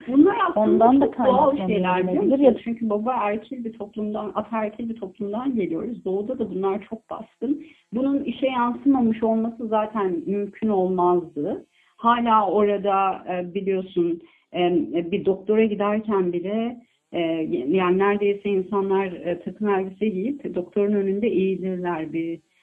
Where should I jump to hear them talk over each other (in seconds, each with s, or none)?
0.6 s